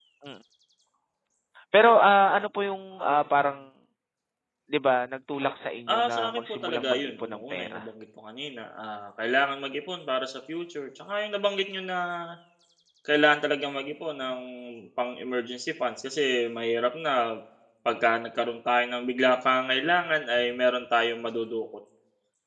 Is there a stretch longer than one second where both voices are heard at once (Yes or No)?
Yes